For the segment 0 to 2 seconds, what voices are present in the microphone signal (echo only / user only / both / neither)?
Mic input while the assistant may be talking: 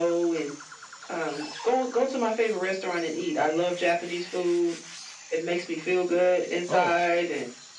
echo only